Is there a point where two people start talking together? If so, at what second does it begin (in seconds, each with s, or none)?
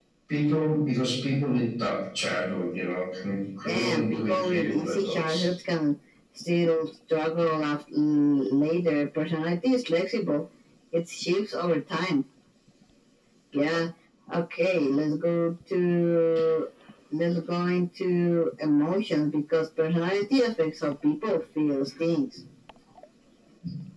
3.6 s